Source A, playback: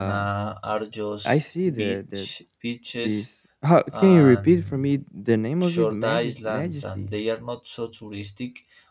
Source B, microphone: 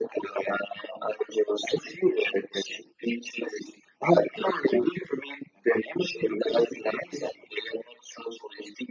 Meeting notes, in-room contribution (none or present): none